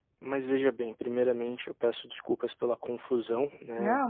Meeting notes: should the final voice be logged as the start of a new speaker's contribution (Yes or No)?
No